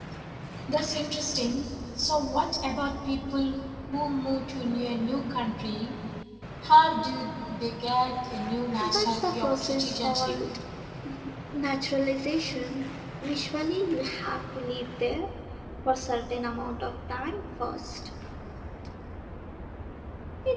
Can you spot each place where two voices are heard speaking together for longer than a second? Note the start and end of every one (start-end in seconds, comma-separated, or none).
8.8-10.4